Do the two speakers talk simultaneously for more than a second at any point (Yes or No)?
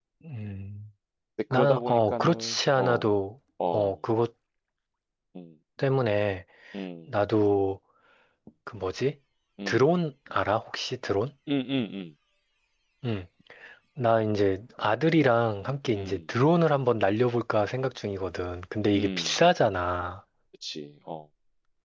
Yes